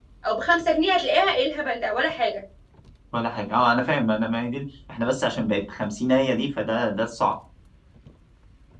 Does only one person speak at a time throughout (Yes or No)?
Yes